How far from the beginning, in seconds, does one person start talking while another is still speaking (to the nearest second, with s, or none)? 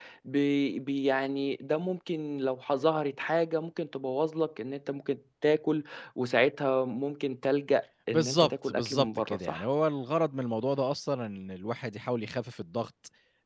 8 s